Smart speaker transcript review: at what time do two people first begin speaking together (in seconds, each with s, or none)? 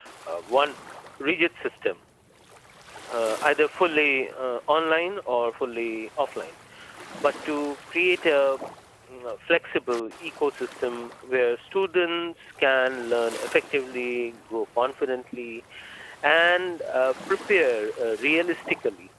none